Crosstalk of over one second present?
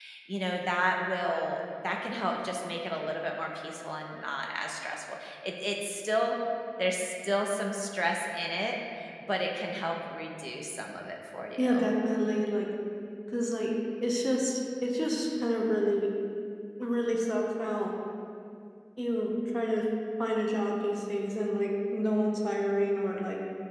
No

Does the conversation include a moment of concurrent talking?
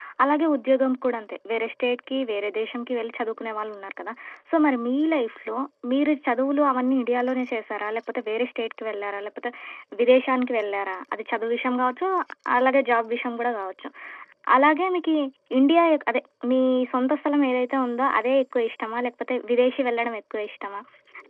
No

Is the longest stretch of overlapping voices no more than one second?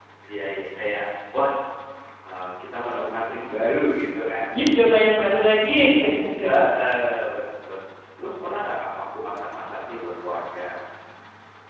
Yes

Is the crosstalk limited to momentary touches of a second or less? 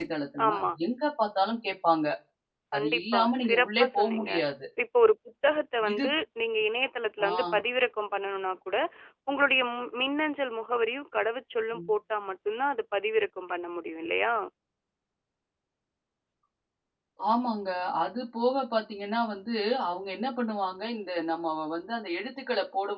No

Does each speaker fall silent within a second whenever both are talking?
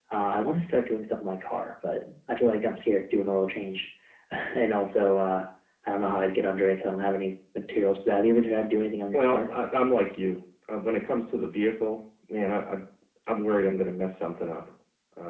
Yes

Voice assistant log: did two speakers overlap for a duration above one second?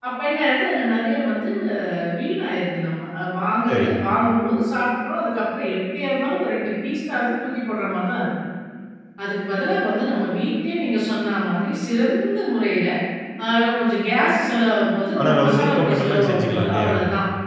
Yes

